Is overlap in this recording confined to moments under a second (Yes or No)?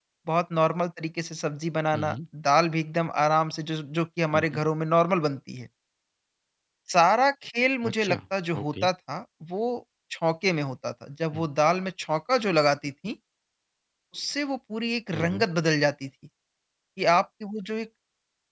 Yes